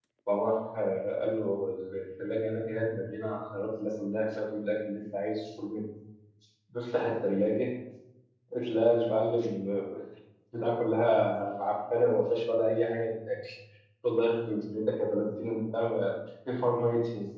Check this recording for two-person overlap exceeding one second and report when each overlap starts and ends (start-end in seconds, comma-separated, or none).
none